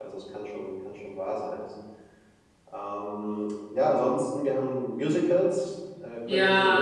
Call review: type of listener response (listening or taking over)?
taking over